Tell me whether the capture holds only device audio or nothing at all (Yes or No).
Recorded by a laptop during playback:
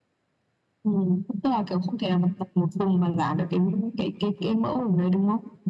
Yes